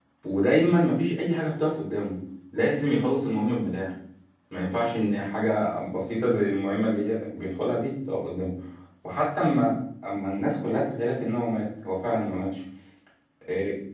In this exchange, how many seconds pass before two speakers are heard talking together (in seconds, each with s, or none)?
none